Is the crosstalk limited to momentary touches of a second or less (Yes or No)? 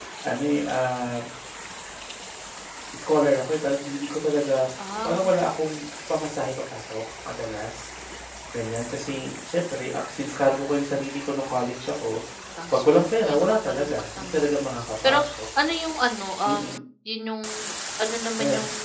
No